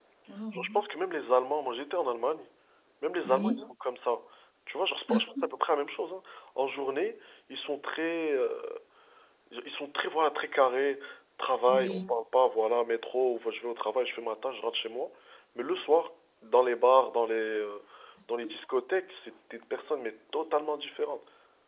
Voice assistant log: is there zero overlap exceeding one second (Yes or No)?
Yes